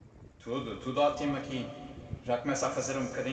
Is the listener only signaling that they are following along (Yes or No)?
Yes